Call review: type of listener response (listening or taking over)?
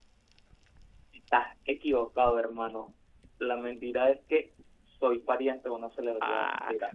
taking over